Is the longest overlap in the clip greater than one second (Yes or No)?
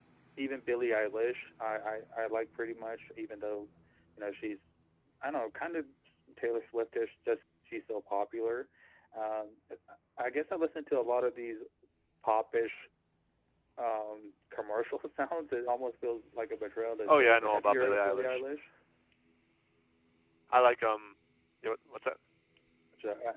Yes